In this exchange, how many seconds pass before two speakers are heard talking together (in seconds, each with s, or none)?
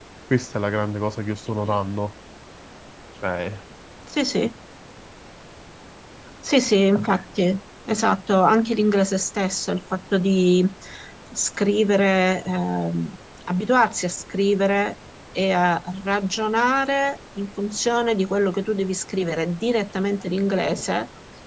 none